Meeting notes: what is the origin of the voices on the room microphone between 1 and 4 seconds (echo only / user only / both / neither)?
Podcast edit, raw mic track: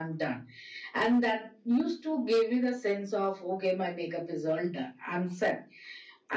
echo only